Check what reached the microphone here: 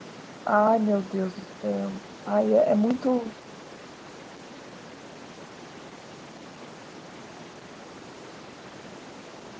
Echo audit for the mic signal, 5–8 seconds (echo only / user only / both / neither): neither